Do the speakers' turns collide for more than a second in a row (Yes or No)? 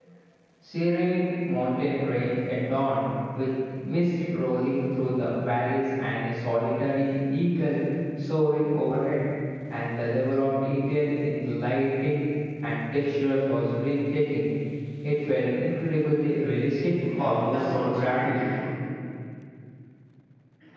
Yes